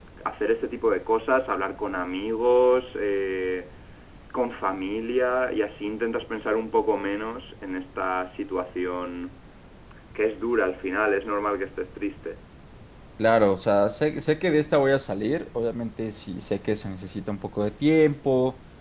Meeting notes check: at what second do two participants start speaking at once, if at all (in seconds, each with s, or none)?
none